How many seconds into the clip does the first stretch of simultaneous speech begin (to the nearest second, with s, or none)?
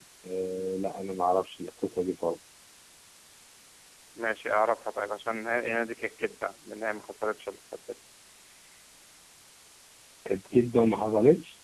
none